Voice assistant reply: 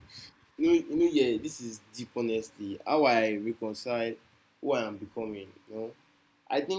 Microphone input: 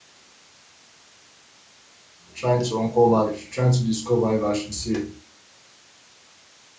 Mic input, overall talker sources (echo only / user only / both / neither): user only